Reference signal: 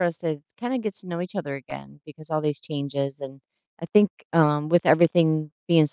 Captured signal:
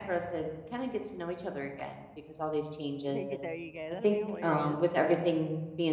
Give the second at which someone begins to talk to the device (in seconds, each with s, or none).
3.1 s